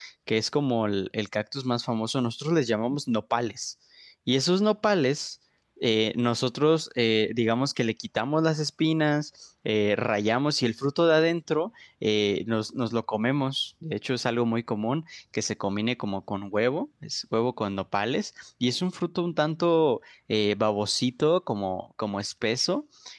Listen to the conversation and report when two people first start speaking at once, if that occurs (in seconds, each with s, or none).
none